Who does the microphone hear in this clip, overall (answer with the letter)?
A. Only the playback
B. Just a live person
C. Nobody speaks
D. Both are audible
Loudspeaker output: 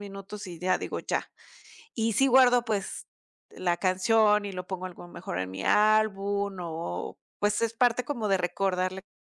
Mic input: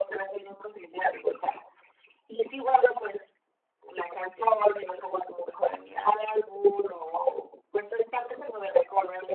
A